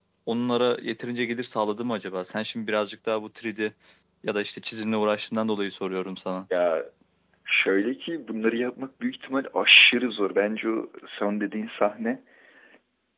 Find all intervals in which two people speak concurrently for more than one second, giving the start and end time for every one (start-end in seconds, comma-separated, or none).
none